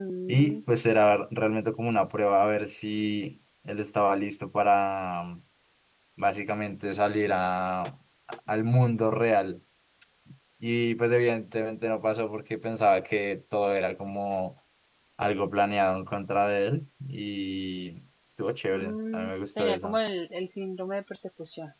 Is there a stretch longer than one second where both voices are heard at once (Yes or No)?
Yes